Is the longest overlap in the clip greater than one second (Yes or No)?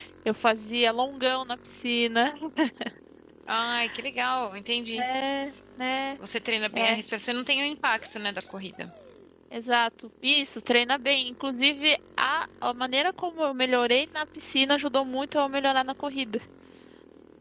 No